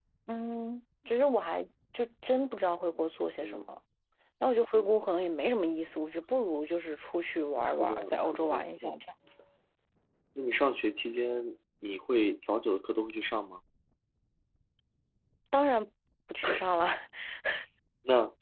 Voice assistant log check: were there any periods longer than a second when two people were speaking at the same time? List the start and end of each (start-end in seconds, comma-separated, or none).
7.6-8.9